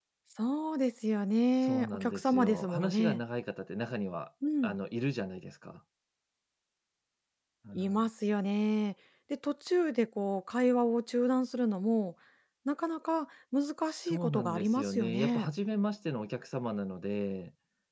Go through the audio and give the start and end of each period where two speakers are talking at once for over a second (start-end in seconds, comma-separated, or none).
1.6-3.2, 13.9-15.5